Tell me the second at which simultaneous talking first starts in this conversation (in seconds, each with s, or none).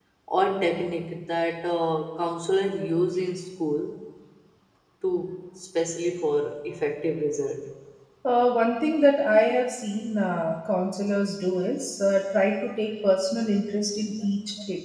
none